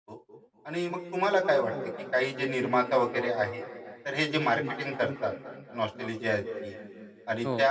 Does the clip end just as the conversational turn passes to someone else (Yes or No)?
No